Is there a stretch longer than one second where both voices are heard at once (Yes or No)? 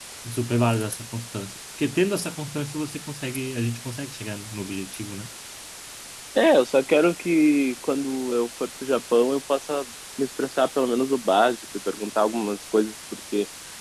No